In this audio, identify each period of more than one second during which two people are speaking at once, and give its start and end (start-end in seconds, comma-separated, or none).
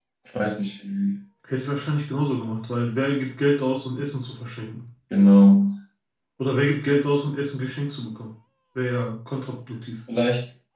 none